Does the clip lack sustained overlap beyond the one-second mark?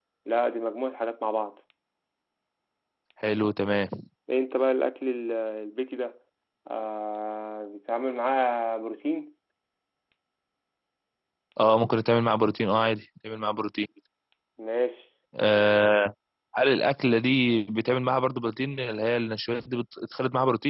Yes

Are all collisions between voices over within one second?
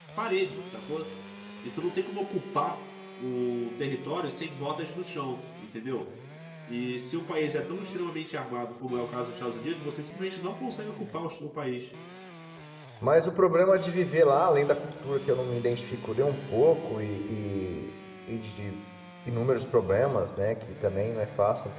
Yes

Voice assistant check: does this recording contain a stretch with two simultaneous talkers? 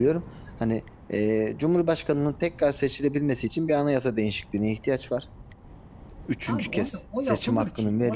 Yes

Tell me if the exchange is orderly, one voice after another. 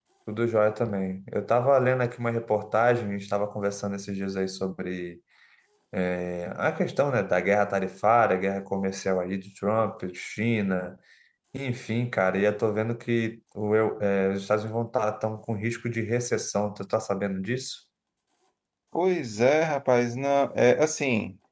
Yes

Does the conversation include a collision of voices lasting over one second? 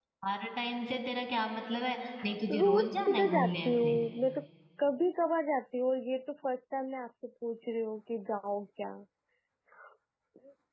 Yes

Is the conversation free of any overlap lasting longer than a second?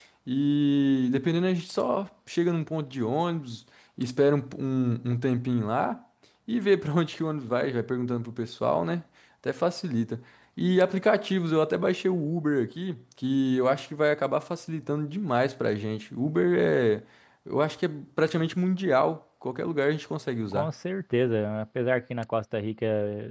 Yes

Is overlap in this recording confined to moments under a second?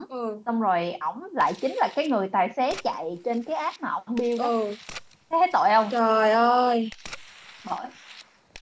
Yes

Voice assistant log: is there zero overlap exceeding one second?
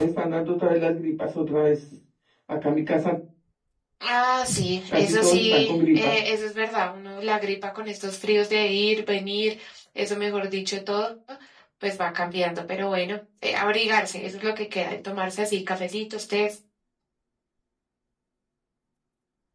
No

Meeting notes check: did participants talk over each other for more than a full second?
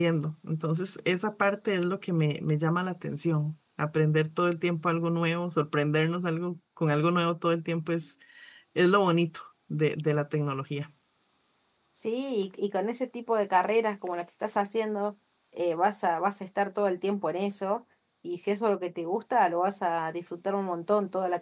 No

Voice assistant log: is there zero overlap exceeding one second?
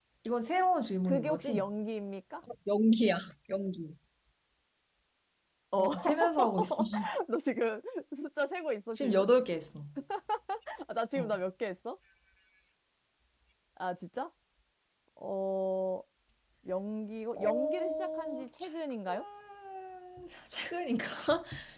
No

